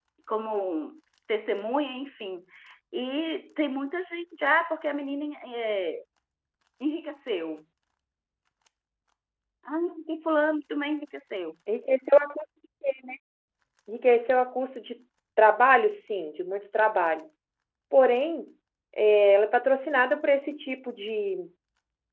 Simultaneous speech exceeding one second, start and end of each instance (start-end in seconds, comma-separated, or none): none